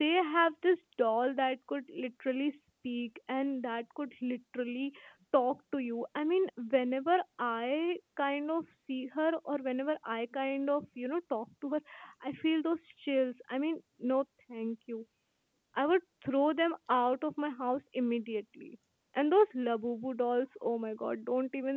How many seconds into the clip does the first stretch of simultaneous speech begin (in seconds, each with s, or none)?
none